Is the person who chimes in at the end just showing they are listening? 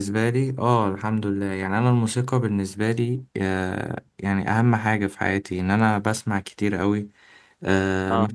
Yes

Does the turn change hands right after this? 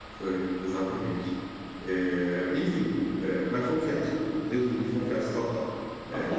Yes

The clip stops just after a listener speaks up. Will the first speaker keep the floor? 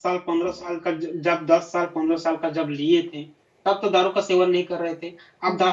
Yes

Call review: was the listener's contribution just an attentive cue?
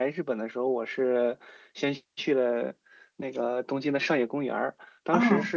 Yes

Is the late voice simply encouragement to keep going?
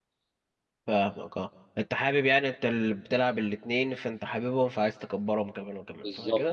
No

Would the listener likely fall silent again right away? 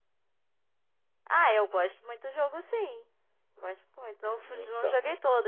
Yes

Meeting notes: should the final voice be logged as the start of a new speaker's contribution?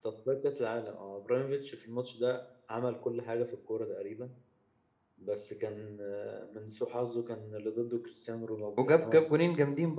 Yes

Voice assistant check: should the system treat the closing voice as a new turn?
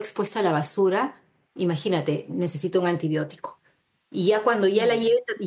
No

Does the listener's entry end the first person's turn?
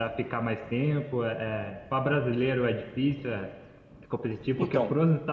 No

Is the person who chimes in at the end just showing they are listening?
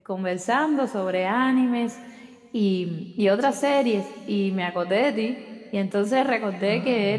Yes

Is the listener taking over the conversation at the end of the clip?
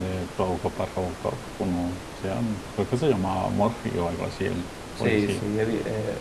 Yes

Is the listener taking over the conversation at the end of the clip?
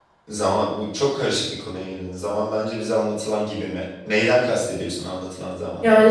Yes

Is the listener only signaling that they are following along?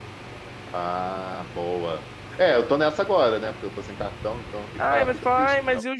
No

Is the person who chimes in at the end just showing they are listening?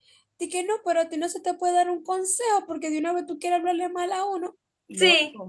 No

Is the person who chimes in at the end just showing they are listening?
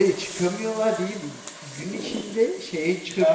Yes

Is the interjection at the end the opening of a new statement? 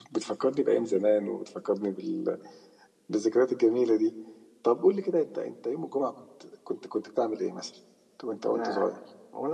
Yes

